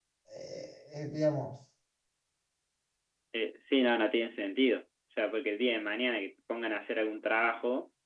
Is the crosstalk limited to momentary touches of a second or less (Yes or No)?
Yes